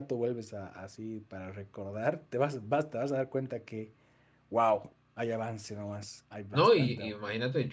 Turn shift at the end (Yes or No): Yes